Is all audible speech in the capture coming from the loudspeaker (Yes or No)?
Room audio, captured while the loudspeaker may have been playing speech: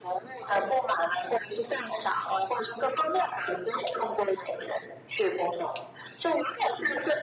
Yes